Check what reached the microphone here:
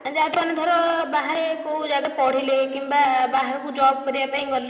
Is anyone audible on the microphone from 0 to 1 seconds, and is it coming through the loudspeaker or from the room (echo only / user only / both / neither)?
echo only